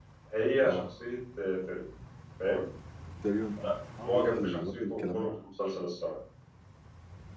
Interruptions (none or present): present